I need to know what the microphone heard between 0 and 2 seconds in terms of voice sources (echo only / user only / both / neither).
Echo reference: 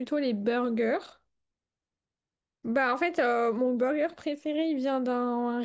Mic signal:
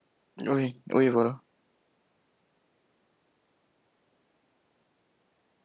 user only